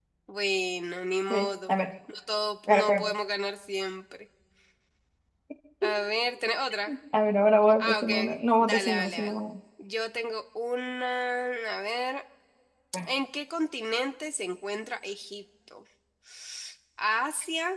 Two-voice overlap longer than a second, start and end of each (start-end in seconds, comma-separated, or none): 7.8-9.4